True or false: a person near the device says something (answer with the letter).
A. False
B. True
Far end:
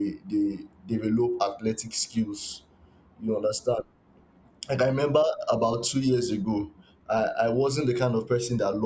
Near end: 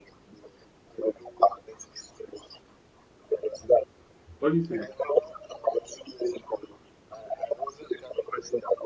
B